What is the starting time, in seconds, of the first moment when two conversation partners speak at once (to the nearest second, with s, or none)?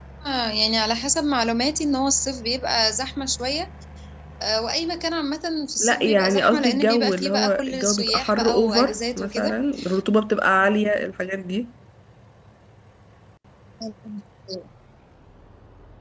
6 s